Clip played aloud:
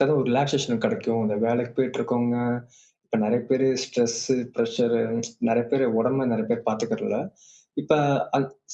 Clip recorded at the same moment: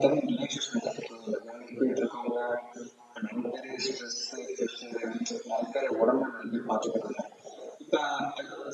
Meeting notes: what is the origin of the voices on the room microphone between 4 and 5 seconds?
echo only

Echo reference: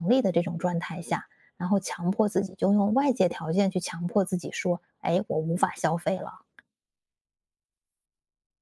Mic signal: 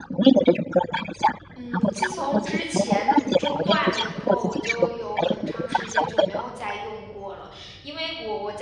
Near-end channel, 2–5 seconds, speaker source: both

